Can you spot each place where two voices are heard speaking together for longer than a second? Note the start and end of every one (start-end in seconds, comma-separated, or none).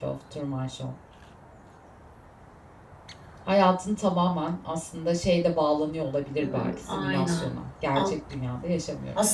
6.4-7.6